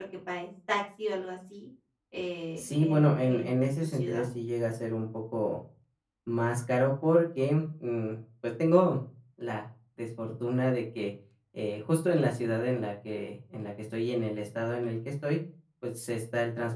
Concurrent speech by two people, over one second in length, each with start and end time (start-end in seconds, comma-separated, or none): 2.6-4.3